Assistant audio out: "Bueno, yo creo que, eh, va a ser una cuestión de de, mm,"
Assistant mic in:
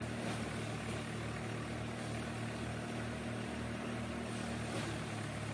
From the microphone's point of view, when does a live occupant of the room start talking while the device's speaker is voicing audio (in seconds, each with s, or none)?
none